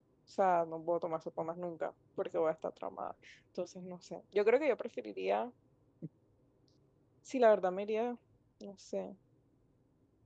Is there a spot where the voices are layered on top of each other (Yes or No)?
No